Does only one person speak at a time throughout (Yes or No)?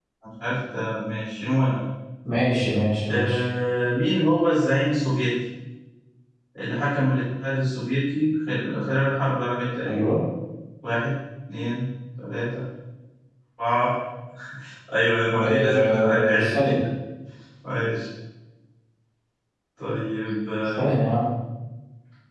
No